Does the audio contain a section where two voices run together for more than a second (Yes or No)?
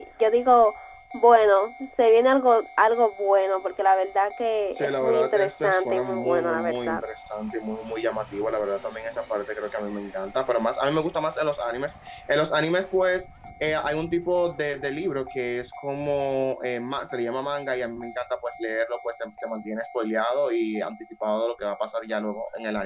Yes